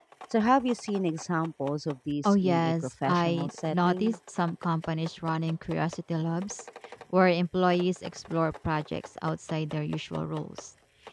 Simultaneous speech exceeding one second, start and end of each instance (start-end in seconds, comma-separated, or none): 2.2-4.2